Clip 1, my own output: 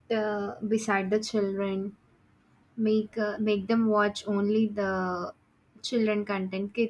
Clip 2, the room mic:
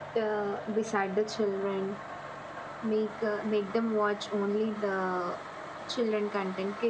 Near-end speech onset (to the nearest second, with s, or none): none